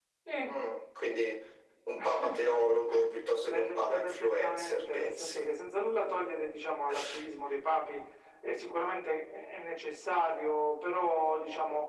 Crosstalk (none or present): present